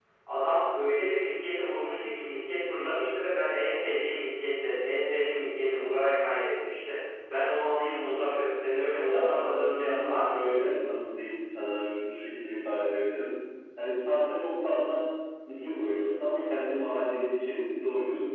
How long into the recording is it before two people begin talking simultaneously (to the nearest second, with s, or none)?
9 s